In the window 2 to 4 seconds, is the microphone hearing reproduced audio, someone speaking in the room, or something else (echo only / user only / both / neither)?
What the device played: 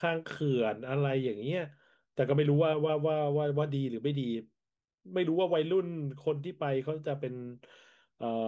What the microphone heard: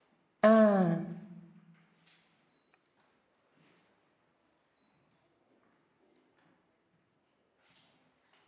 neither